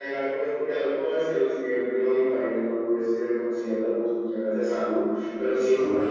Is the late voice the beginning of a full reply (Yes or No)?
No